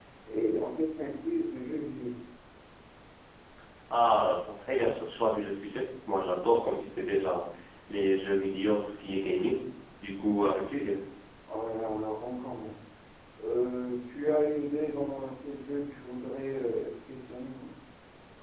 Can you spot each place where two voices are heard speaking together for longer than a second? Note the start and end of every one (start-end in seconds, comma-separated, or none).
none